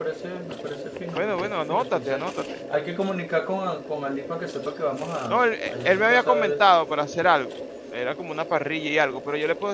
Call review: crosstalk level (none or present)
present